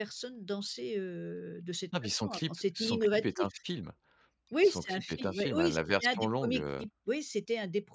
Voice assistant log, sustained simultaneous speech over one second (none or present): present